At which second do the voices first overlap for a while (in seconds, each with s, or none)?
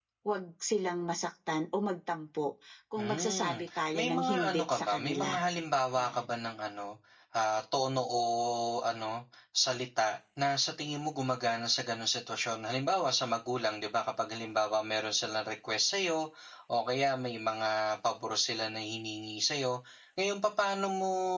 3.0 s